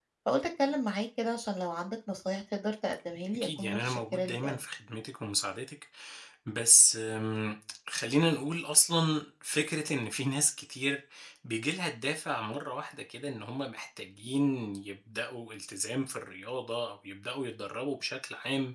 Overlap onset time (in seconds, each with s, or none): 3.3 s